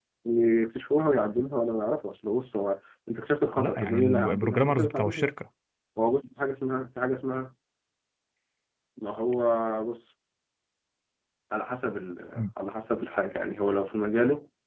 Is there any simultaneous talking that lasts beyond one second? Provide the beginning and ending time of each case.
3.6-5.3

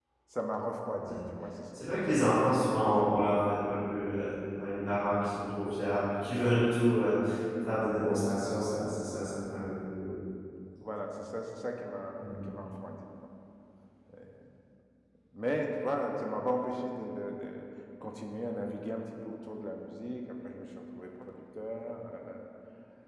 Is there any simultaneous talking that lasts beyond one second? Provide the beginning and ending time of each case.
none

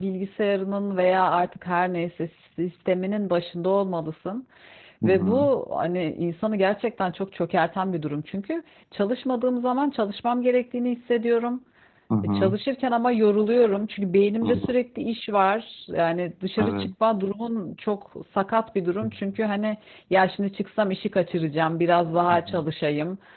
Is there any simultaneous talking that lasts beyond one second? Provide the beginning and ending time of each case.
none

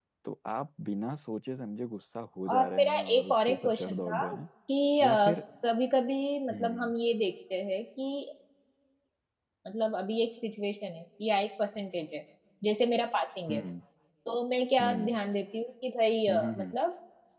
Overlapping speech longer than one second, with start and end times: 2.5-4.4

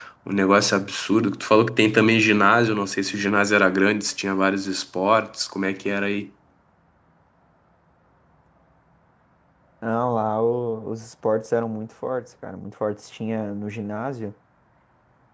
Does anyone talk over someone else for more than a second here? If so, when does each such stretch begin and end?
none

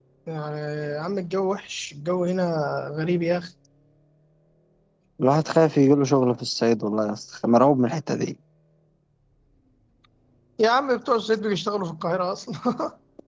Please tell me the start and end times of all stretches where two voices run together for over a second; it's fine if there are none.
none

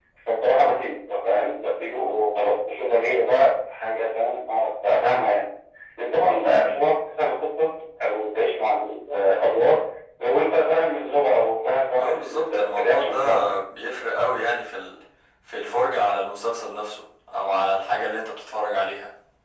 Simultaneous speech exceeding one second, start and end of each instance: 12.0-13.6

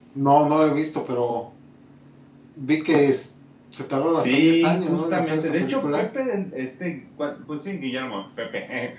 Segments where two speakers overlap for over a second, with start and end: 4.2-6.0

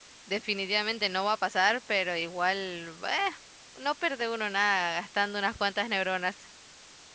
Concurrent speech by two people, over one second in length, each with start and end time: none

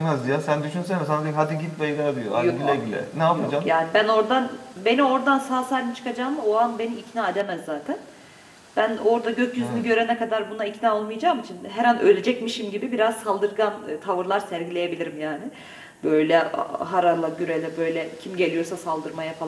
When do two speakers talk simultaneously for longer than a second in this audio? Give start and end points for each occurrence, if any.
none

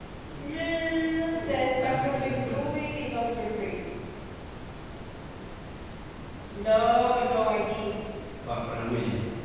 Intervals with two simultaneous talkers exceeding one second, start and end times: 1.3-2.7

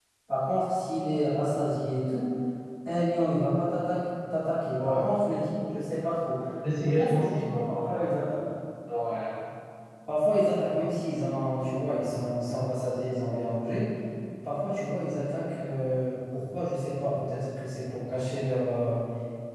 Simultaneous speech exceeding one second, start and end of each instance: 6.8-8.1

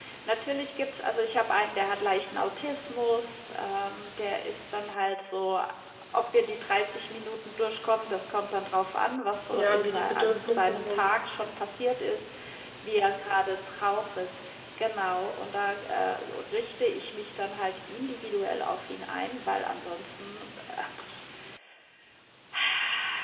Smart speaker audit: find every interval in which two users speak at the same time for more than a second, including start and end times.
9.5-11.0

